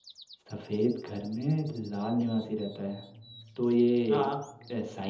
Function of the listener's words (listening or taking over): listening